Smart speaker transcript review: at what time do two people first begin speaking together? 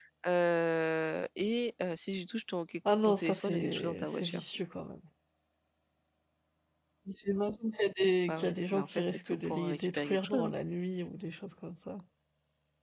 3.0 s

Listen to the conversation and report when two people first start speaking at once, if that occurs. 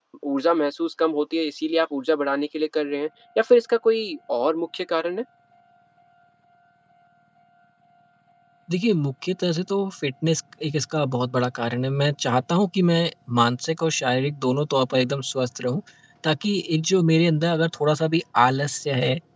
none

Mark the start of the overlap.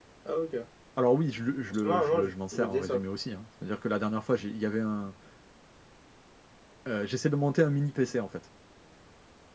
1.7 s

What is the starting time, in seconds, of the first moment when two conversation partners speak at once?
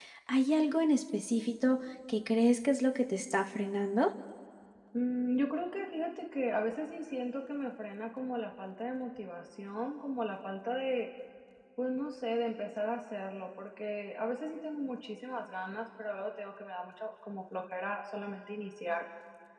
none

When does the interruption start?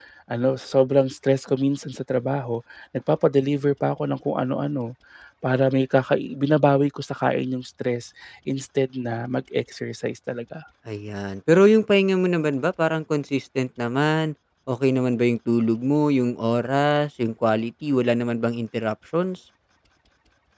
none

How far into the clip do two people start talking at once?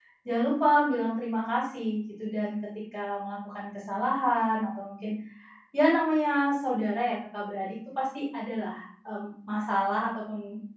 none

